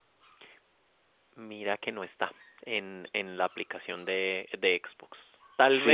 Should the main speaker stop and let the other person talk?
No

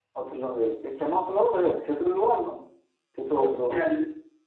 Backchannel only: No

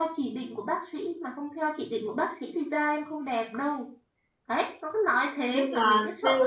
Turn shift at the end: Yes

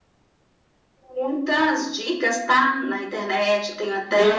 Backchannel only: No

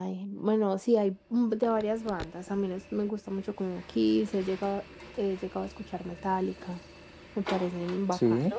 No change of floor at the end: Yes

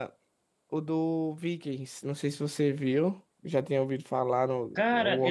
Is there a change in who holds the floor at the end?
Yes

